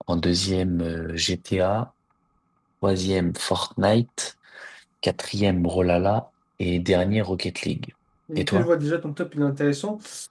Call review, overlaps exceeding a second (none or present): none